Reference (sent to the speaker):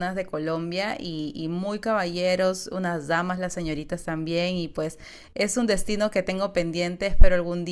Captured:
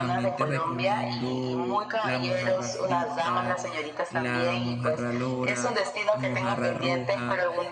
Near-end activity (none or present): present